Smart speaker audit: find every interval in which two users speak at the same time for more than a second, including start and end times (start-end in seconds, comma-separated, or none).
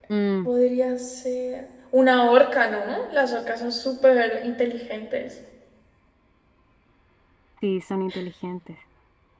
none